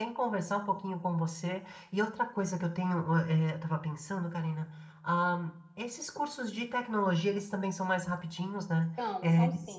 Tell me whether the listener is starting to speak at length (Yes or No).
Yes